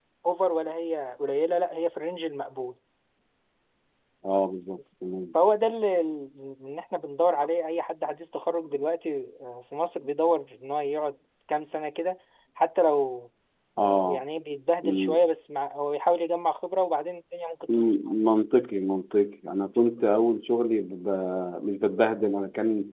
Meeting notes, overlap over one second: none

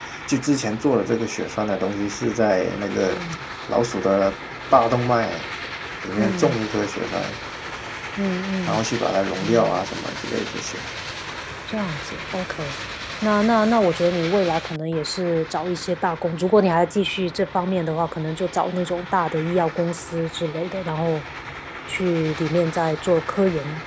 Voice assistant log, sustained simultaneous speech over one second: none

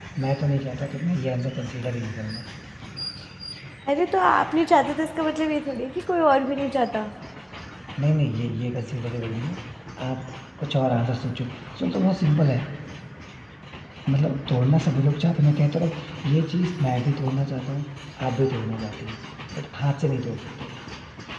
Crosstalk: none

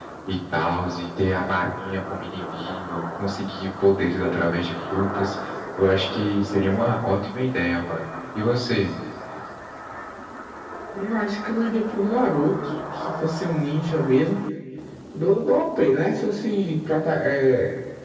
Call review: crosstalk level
none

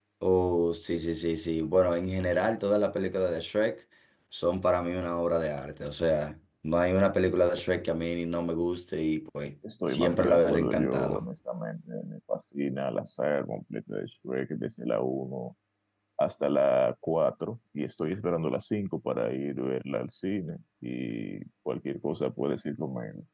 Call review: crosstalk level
present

